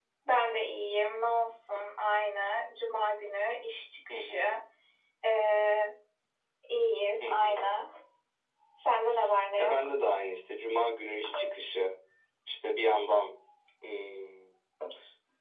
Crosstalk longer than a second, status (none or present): none